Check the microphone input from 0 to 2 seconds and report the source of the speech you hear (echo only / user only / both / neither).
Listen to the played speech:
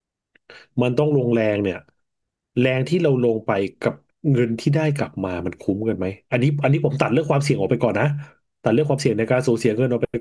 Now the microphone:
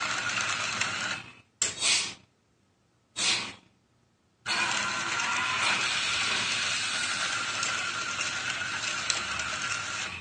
neither